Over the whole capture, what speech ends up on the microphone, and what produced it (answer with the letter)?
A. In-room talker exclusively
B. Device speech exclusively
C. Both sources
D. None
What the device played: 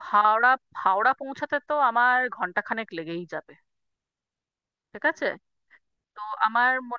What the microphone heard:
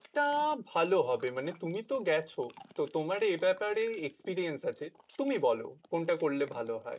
A